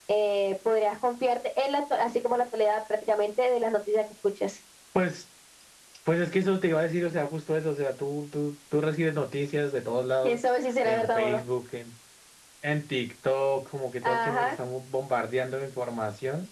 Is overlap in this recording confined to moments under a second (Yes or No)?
Yes